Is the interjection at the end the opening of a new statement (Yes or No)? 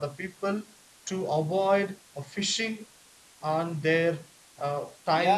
Yes